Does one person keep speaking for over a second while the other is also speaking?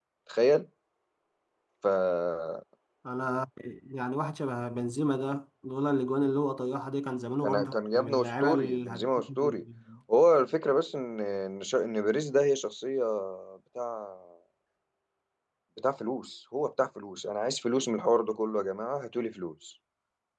Yes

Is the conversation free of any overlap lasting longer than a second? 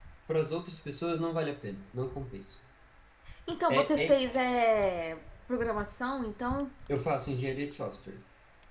Yes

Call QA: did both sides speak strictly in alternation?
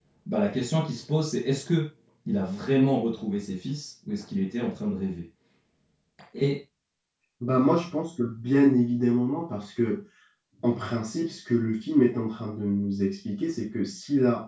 Yes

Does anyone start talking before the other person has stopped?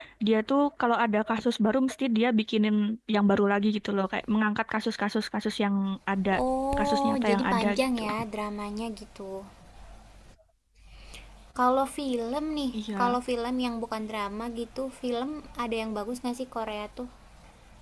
Yes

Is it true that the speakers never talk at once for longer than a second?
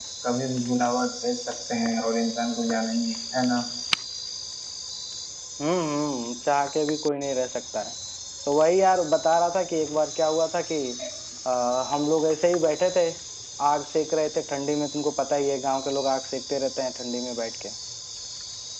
Yes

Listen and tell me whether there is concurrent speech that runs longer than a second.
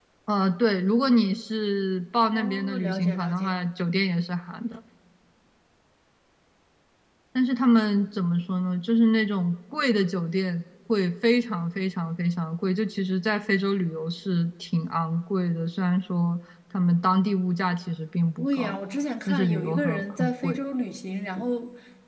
Yes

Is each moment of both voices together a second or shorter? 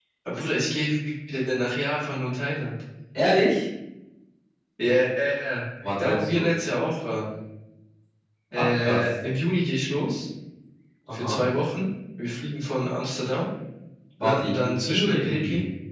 No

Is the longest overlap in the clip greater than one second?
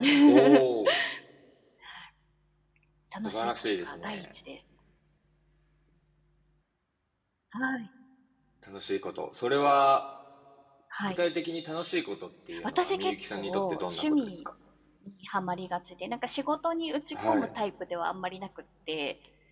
Yes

